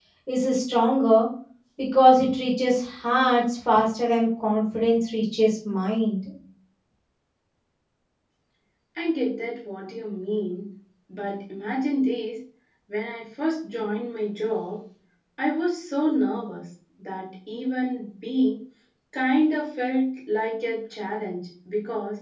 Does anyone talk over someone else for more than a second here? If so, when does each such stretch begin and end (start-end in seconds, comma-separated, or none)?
none